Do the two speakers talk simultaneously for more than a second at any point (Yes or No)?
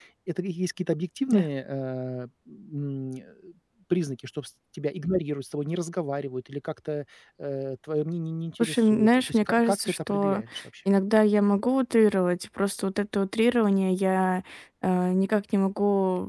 Yes